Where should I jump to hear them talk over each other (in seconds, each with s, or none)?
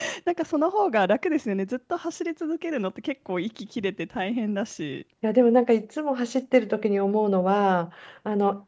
none